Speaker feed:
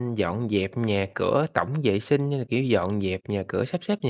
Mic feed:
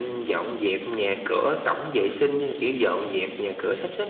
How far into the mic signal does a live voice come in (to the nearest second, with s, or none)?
none